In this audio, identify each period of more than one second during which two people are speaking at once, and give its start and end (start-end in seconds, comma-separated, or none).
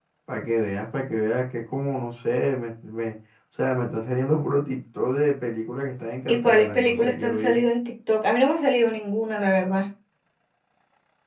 6.3-7.6